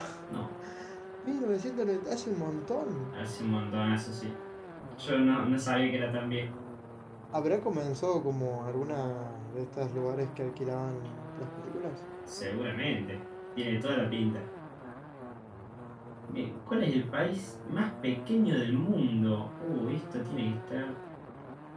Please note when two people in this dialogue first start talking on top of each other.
none

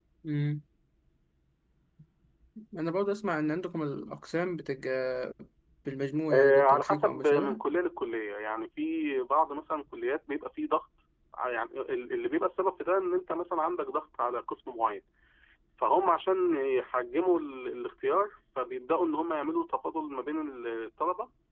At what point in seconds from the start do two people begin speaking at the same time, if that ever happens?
6 s

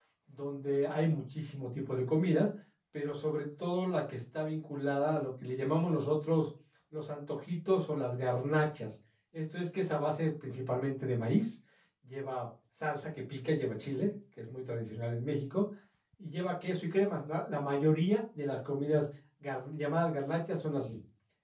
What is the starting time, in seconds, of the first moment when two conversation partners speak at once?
none

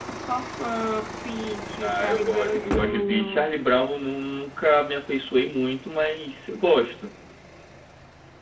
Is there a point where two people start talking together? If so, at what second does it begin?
2 s

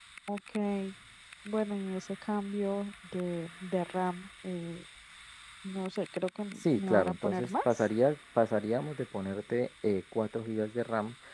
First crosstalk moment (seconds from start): 7 s

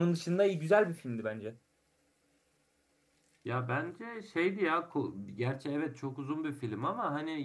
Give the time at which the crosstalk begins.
none

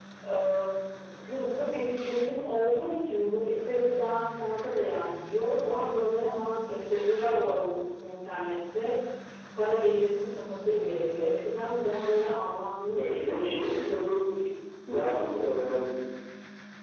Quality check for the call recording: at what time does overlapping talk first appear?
13 s

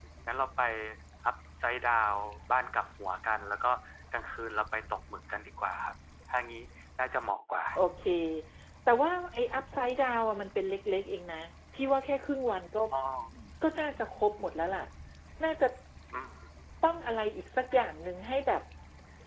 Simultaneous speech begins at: none

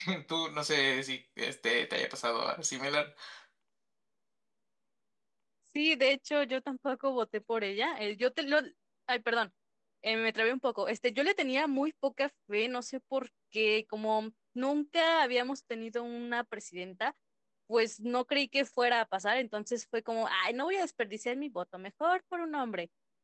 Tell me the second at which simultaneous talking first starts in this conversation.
none

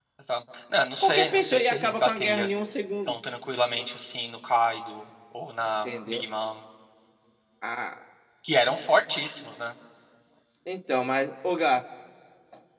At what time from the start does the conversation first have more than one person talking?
1 s

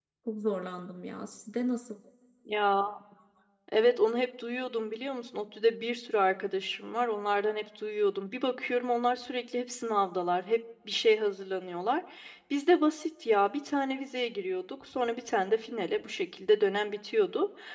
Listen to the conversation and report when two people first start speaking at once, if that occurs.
none

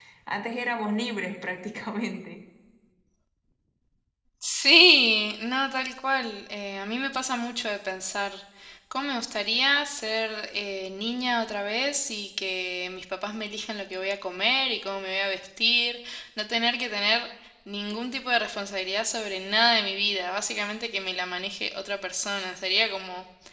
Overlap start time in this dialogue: none

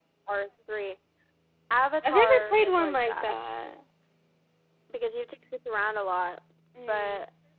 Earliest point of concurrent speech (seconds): 2 s

